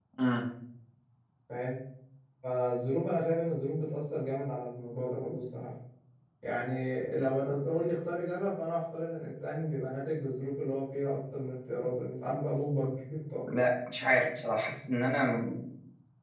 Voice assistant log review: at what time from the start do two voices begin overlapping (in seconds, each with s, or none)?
none